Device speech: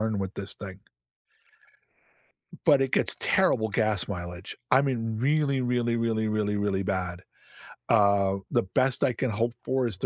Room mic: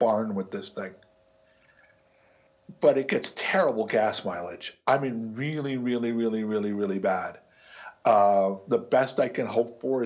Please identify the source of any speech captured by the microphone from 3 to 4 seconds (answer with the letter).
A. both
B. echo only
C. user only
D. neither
B